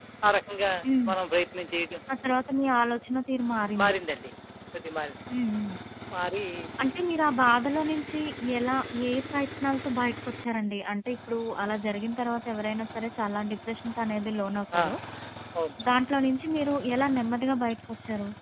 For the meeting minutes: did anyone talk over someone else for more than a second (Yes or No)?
No